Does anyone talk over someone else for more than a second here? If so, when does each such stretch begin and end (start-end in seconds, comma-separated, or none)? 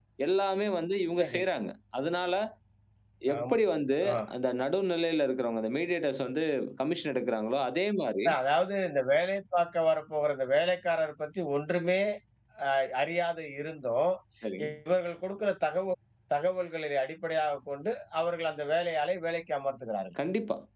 none